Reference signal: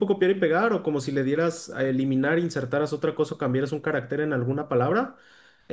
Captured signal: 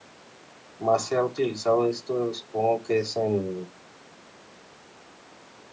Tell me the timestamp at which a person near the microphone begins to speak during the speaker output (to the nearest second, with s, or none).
1 s